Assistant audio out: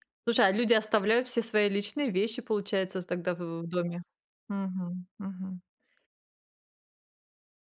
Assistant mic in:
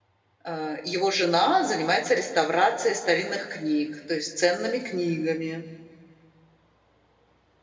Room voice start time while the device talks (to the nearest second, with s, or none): 0 s